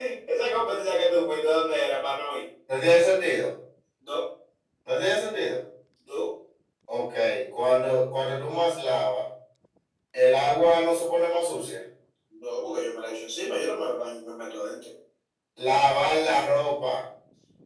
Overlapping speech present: No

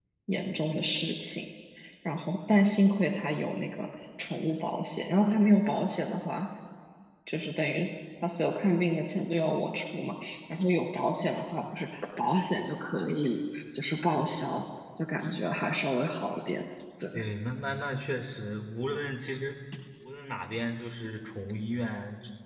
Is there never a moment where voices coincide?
Yes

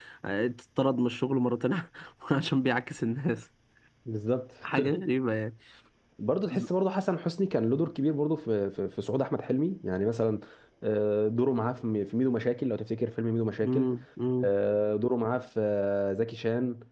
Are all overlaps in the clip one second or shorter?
Yes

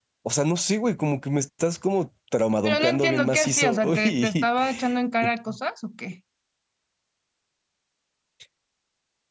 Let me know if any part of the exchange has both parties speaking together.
Yes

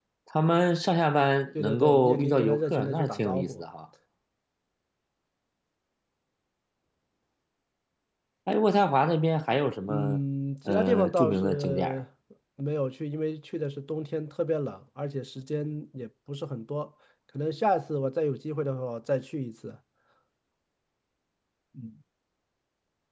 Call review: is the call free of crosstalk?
No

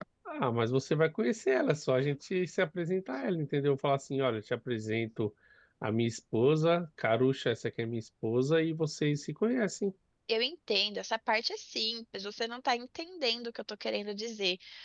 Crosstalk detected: No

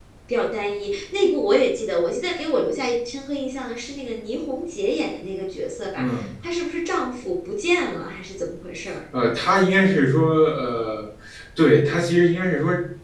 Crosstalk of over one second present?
No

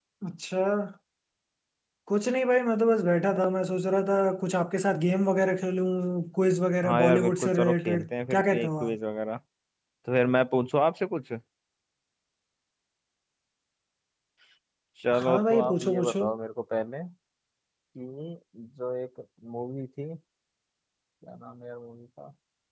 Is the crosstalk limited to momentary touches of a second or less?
No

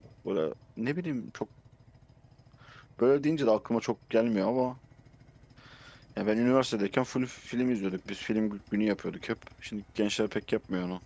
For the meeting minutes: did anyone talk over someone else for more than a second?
No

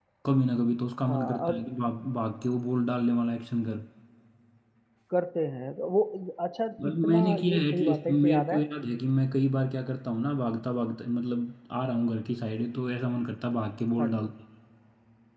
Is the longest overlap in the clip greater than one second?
Yes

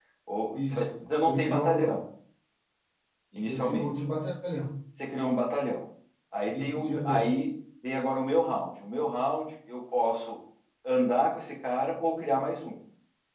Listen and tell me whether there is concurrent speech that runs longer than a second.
Yes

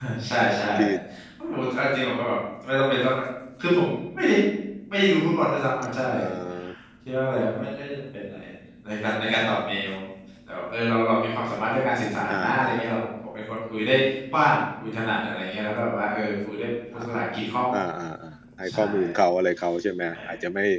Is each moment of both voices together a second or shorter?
Yes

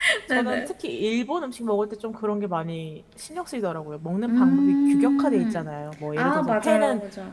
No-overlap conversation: No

